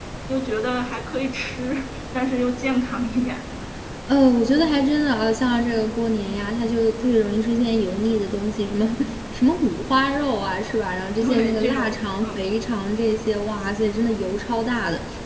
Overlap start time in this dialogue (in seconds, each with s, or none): 11.2 s